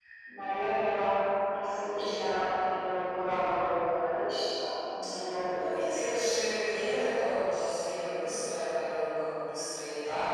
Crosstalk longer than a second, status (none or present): none